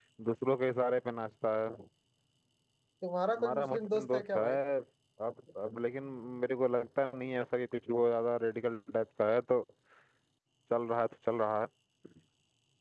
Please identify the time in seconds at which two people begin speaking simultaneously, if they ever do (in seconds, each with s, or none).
3.3 s